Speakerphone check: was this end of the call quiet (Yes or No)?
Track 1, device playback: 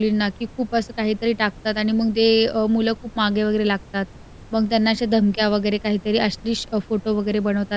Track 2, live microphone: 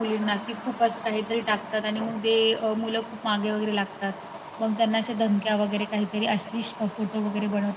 Yes